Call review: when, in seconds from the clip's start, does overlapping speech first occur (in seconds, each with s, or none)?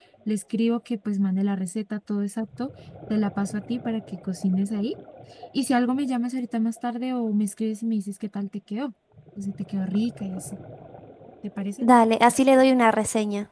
none